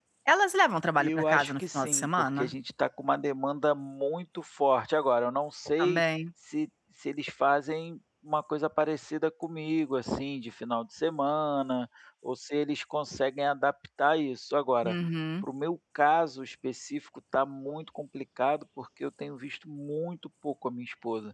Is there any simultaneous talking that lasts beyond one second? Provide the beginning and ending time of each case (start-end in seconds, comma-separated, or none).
1.0-2.5